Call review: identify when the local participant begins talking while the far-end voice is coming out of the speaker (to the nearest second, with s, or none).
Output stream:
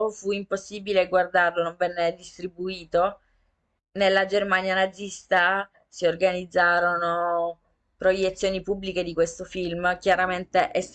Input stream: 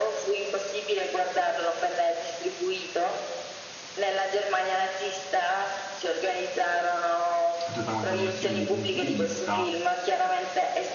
8 s